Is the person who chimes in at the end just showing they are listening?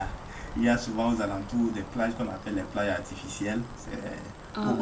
Yes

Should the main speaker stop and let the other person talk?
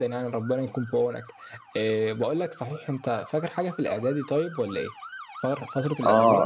Yes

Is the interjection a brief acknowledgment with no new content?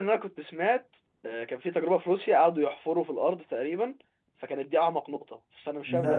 No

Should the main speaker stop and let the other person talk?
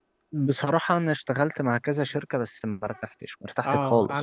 Yes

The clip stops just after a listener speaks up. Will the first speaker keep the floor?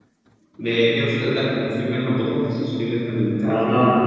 No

